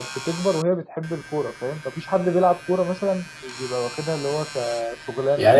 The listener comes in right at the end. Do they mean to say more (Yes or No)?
Yes